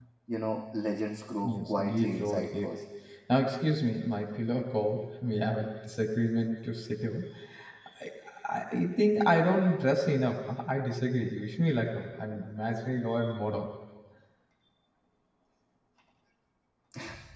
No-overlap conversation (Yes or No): No